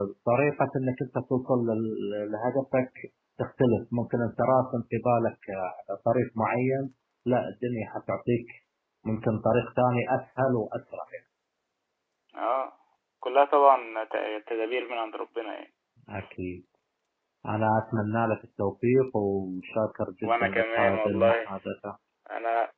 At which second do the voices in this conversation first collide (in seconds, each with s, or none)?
20.2 s